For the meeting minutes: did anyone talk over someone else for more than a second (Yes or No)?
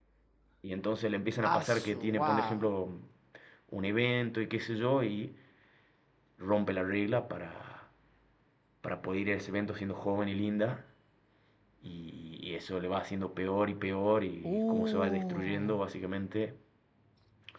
Yes